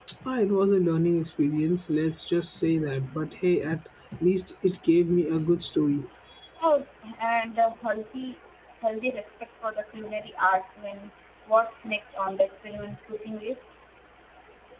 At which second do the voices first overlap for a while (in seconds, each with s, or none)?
none